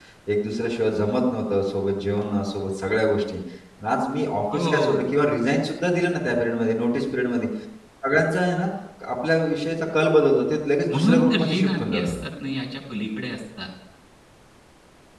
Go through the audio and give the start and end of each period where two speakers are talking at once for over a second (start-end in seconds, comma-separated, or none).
10.9-12.1